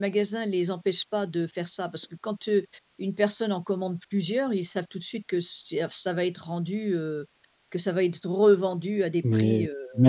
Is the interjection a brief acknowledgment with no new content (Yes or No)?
No